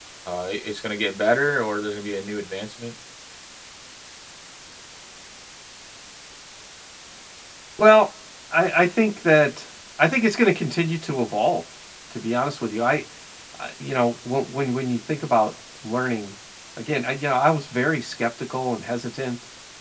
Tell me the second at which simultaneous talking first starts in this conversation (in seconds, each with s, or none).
none